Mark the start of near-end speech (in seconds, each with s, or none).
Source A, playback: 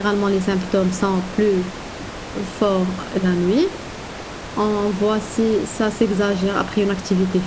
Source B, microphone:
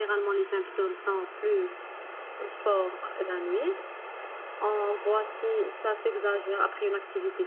none